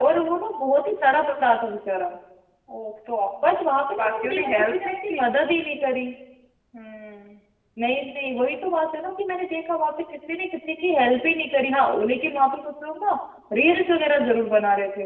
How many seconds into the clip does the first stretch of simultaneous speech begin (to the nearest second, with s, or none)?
4 s